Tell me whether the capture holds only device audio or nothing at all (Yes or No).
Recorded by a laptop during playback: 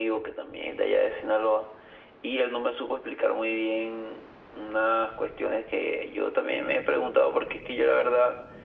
Yes